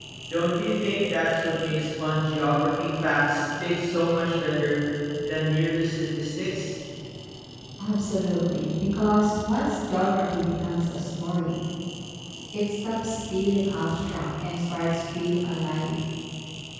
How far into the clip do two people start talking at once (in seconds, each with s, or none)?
none